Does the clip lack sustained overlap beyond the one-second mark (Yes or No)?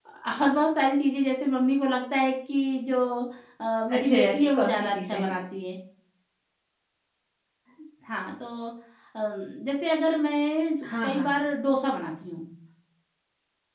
No